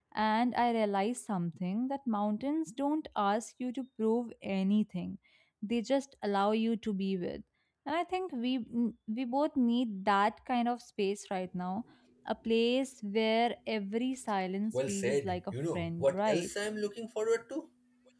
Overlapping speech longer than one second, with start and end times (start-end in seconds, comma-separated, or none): 14.7-16.5